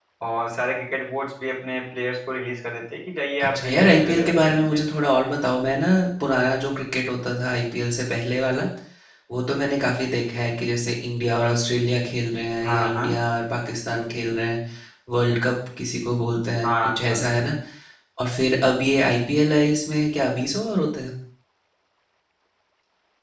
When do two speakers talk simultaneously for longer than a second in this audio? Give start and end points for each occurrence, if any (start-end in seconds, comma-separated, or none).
3.4-4.8